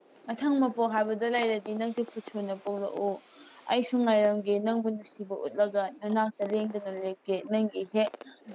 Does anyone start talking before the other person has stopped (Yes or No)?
No